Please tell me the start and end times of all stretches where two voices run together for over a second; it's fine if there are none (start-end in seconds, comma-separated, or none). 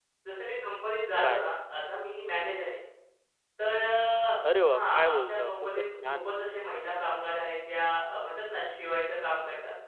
4.6-6.3